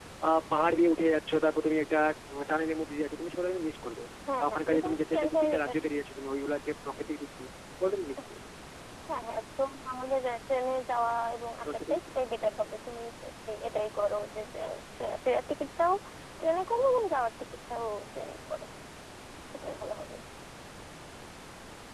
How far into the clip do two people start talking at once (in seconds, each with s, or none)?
4.4 s